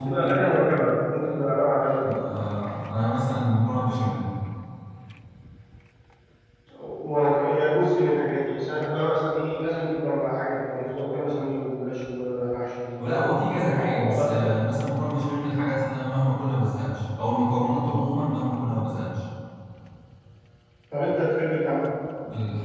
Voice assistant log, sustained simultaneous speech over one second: present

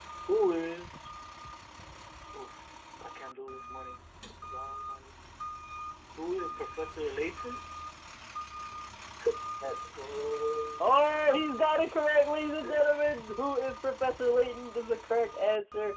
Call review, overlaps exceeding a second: none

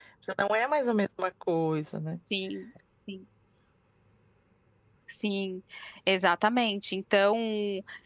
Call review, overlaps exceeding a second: none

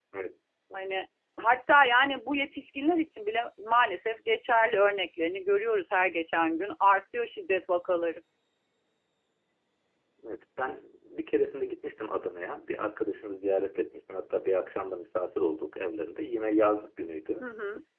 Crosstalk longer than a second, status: none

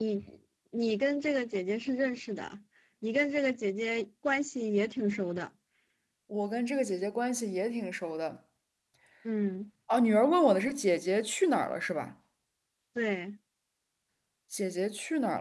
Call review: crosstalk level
none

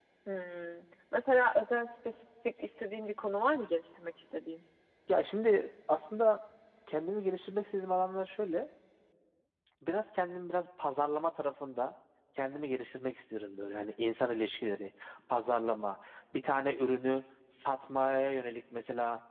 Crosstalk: none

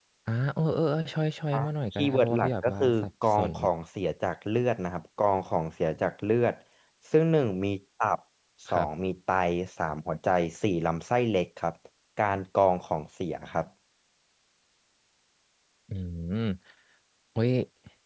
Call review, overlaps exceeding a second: present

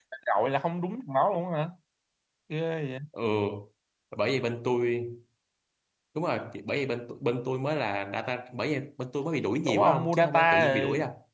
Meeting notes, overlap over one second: present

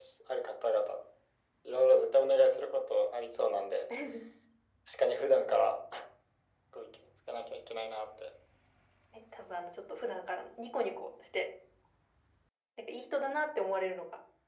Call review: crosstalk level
none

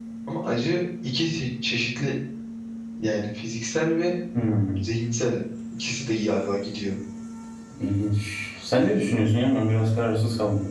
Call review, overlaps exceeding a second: none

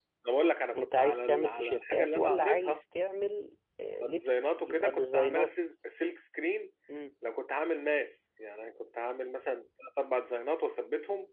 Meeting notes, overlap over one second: present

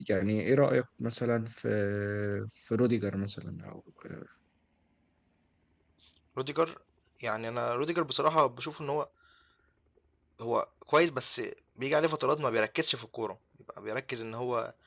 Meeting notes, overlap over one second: none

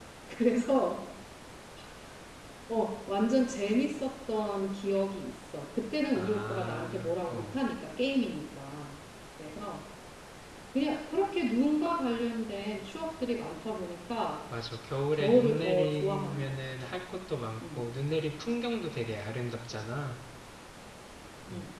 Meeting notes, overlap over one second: present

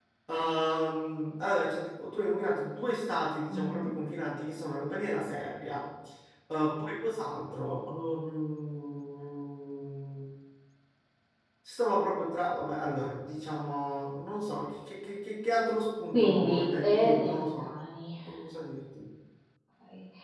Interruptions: present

